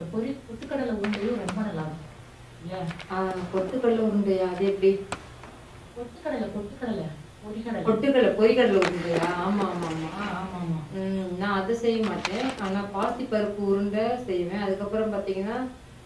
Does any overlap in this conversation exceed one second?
No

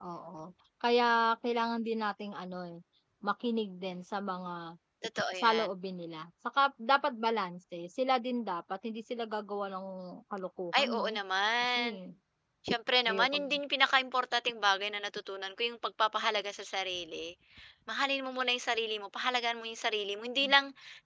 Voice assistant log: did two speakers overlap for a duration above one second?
No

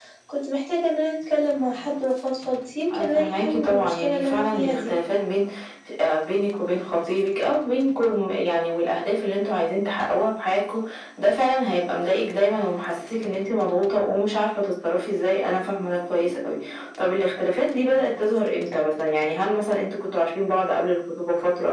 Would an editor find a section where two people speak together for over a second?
Yes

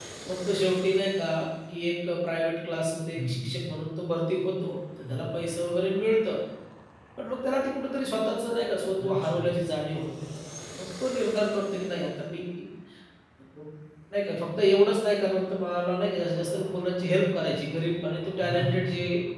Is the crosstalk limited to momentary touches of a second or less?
Yes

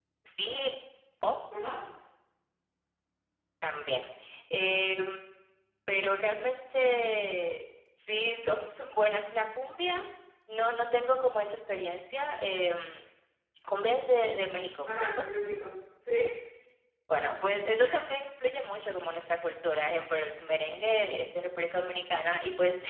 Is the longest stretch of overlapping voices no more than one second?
Yes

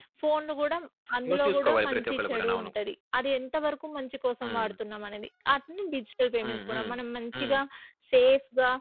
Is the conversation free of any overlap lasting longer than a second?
No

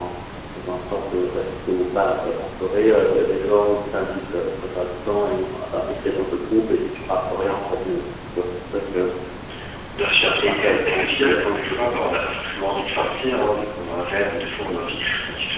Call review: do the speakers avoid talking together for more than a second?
No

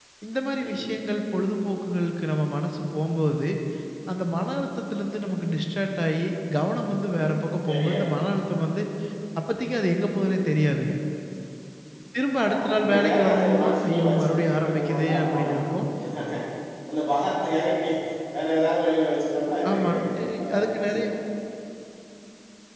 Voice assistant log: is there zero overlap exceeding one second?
No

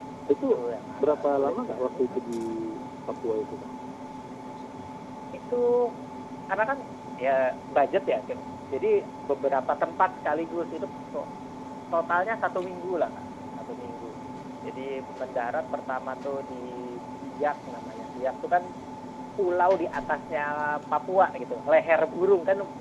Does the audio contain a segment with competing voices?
Yes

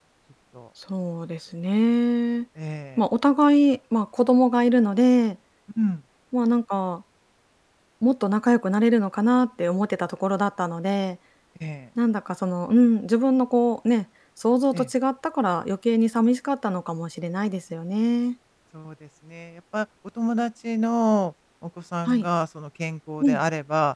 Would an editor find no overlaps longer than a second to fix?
Yes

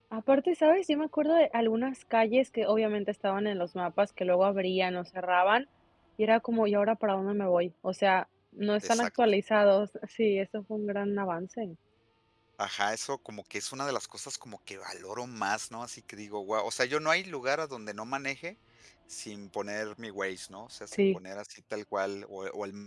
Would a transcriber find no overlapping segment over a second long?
Yes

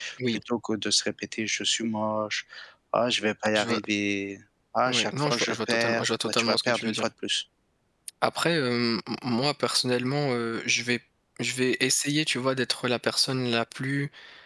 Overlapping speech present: Yes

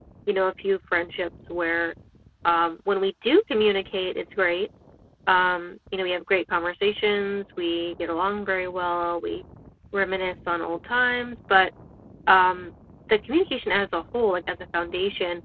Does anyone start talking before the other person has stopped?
No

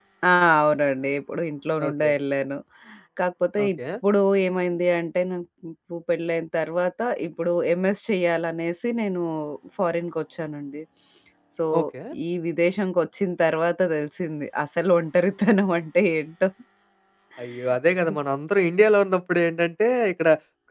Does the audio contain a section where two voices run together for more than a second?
No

